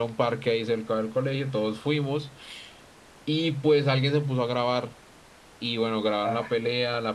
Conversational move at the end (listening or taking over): listening